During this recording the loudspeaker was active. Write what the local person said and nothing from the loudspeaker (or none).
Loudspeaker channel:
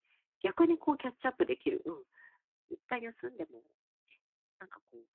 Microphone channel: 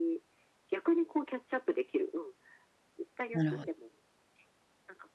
なるほはい。